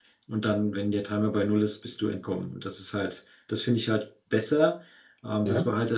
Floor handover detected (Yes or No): No